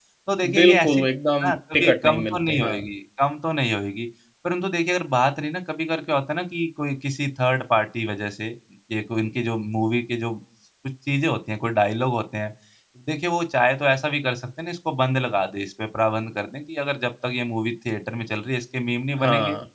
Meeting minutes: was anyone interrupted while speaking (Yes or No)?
Yes